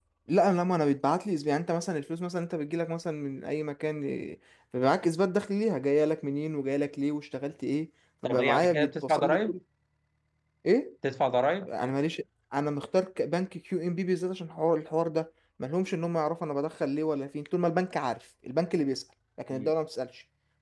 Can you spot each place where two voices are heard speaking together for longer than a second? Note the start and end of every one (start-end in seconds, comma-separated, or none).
8.2-9.6